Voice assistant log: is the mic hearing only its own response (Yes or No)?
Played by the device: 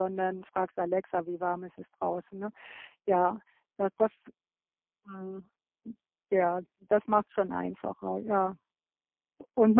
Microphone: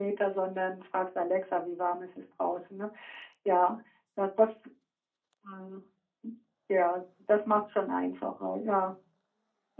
Yes